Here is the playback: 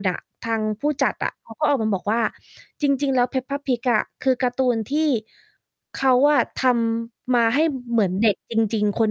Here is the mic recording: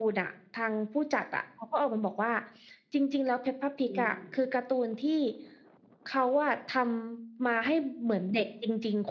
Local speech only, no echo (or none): ดี ๆ